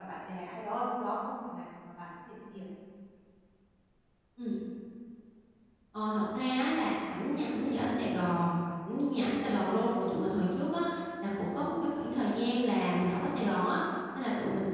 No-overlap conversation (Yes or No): Yes